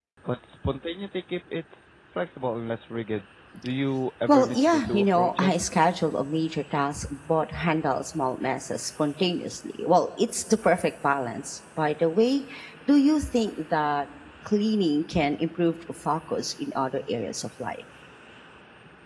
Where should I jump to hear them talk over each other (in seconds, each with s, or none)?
4.3 s